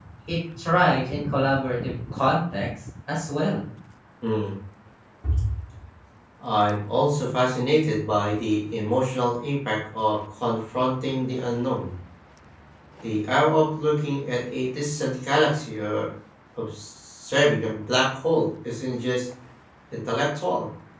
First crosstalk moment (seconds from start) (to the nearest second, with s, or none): none